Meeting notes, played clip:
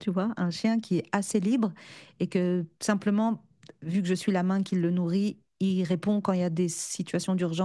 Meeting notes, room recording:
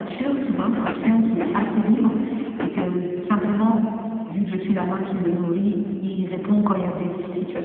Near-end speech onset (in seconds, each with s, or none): none